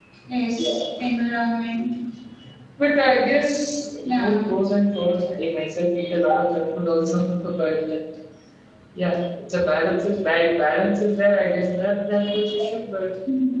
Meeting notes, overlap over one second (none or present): none